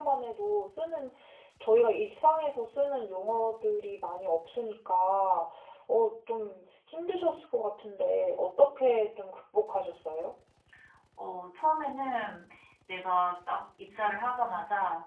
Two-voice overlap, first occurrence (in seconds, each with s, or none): none